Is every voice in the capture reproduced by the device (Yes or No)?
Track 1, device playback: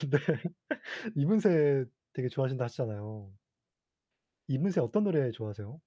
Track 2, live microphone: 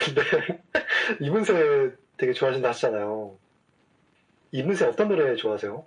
Yes